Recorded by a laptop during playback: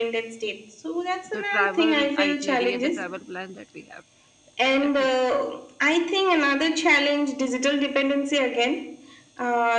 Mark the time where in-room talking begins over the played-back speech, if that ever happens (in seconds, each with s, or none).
1.3 s